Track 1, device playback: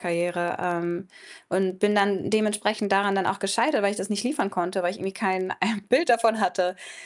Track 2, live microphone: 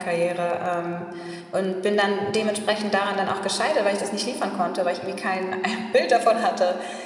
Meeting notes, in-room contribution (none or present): none